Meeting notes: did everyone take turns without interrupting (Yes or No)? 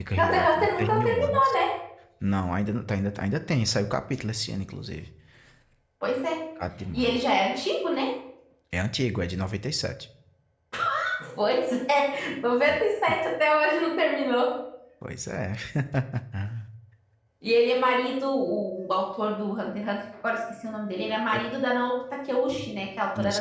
No